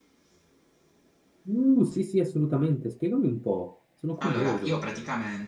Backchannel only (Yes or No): No